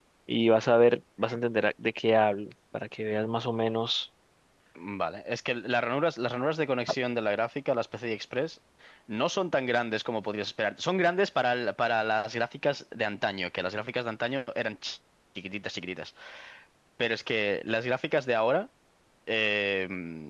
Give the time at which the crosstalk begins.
none

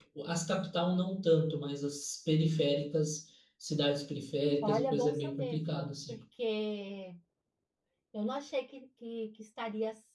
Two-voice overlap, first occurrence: 4.6 s

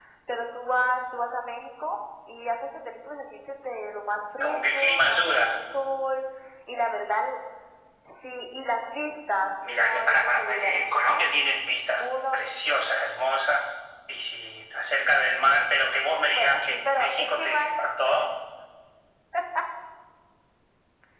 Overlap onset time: 4.4 s

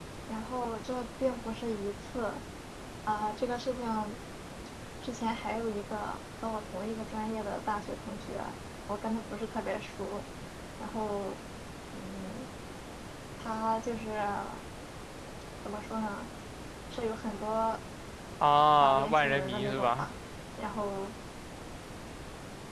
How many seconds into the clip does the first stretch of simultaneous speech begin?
18.8 s

